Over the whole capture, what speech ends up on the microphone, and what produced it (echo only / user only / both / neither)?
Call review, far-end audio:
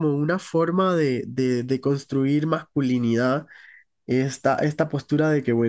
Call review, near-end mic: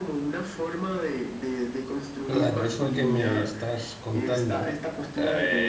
both